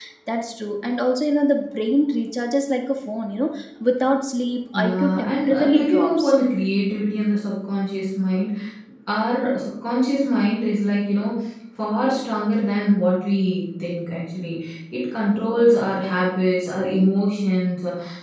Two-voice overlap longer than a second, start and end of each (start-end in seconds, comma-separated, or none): 4.7-6.3